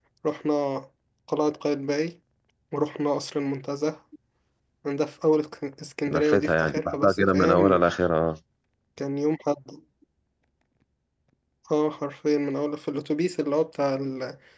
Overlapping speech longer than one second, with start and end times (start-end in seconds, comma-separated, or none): 6.1-7.8